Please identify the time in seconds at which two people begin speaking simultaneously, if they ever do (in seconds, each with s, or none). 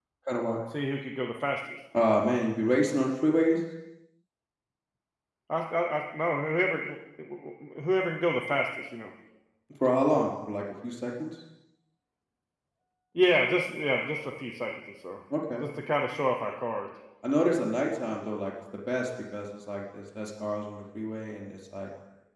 none